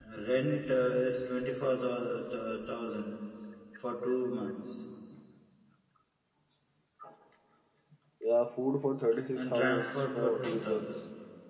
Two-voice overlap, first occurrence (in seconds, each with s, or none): 9.3 s